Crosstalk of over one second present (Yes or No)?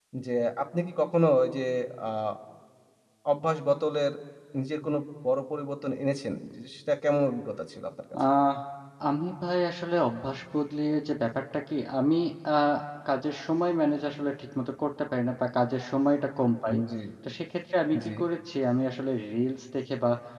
No